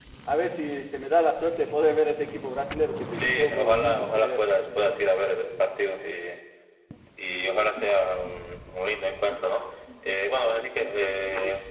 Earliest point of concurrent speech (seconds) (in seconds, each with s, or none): 2.9 s